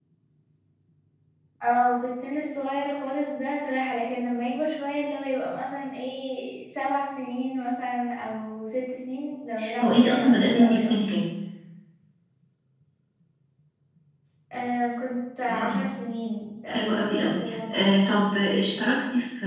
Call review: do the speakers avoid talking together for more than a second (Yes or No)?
No